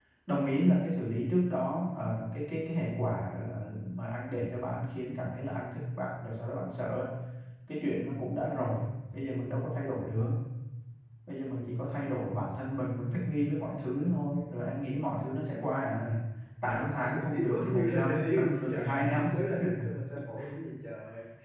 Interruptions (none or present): present